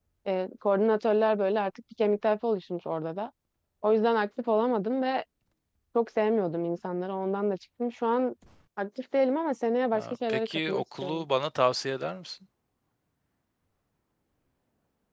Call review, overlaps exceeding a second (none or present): present